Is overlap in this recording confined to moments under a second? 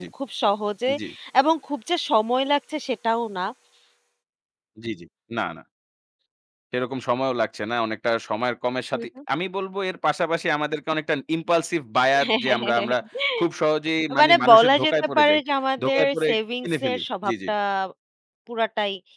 No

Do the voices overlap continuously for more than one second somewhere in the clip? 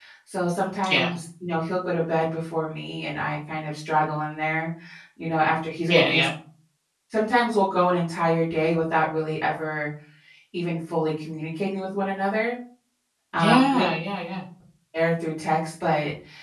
No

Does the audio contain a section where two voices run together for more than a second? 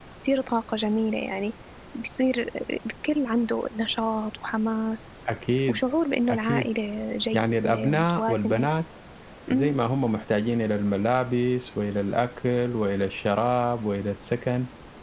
Yes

